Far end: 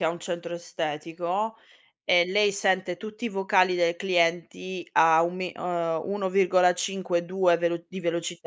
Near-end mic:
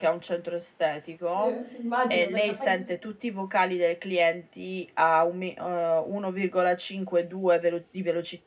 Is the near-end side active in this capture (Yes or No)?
Yes